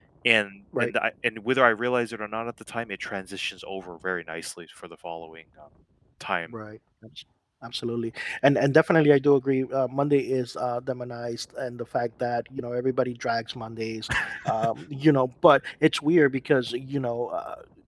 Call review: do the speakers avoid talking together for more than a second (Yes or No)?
Yes